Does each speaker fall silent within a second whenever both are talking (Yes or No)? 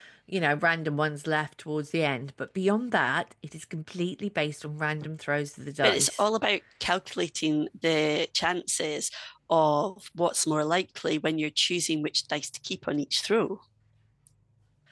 Yes